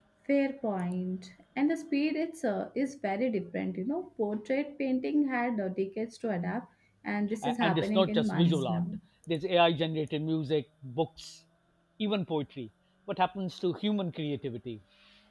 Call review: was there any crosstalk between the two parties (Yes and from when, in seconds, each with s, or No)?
Yes, from 7.4 s